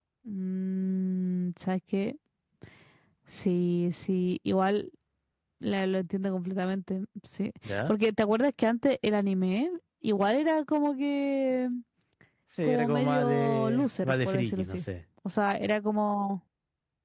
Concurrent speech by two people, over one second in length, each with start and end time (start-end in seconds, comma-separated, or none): 12.6-14.8